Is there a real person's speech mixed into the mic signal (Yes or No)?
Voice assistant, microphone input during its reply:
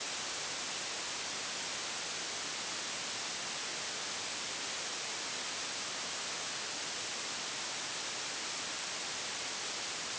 No